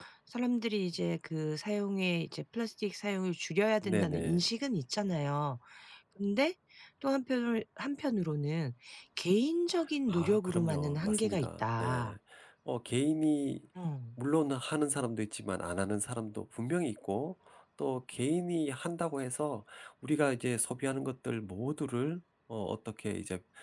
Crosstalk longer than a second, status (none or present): present